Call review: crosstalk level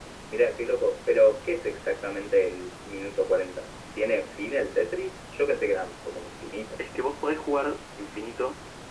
none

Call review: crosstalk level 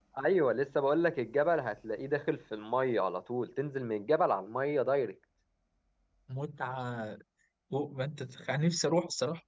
none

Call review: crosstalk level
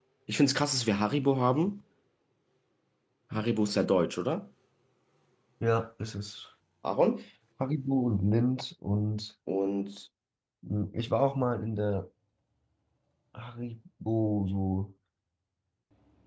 none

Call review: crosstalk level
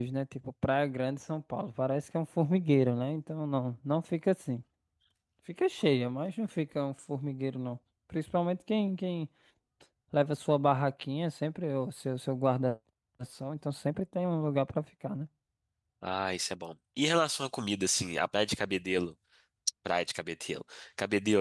none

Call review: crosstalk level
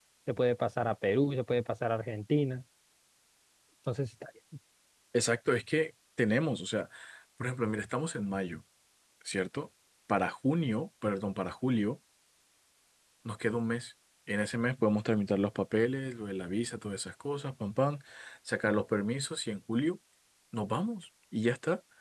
none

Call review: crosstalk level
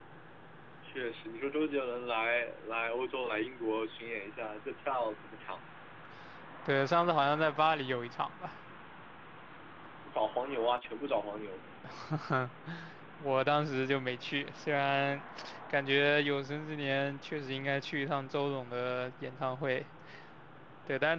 none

